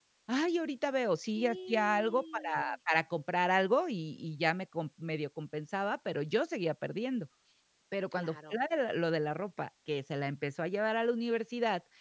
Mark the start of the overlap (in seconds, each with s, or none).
1.2 s